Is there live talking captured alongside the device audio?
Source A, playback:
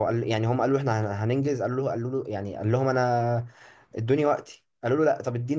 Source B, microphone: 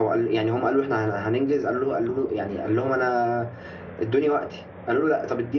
No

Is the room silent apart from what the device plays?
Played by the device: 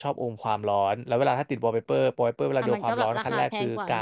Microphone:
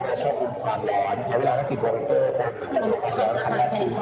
Yes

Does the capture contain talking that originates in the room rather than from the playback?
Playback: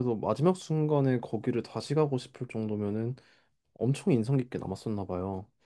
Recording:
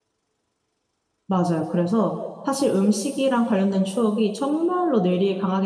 Yes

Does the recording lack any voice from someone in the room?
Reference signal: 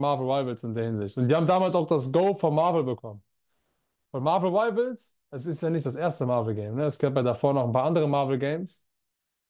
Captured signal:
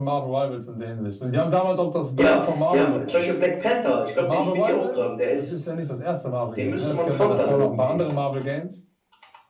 No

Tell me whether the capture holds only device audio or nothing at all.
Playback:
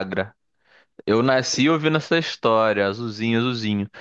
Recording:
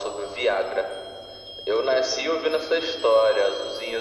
Yes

